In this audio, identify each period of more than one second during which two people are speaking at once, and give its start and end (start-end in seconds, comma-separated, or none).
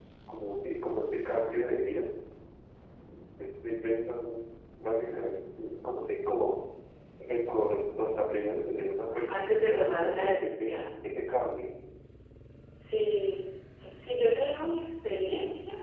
9.3-10.8